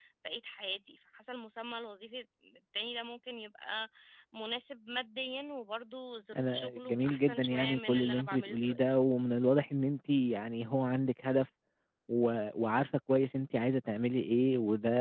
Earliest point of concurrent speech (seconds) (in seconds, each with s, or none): 6.3 s